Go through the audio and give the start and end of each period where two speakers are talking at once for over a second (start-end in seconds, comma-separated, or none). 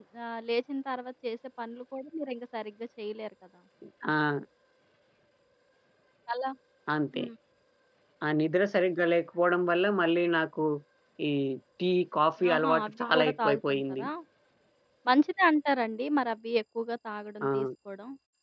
12.5-14.0